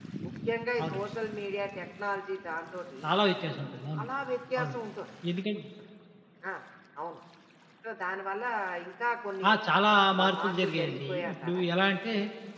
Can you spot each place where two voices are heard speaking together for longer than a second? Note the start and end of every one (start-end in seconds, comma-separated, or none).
10.2-11.6